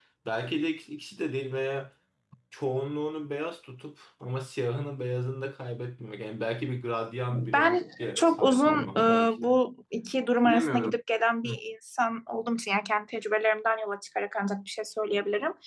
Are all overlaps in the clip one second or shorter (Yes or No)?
No